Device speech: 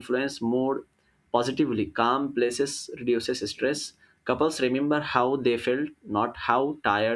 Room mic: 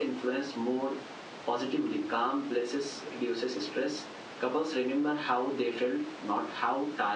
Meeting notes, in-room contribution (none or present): none